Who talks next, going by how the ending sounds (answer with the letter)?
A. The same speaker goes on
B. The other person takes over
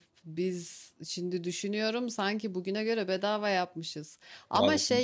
A